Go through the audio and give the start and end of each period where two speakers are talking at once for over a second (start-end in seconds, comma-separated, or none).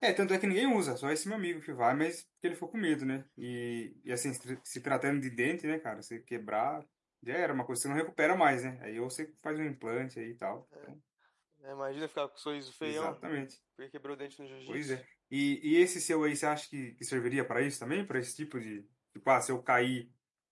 none